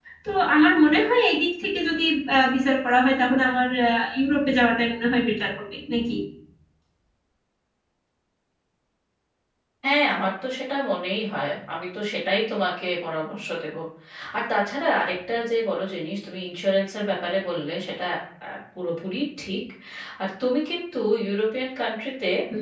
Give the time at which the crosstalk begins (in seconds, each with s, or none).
none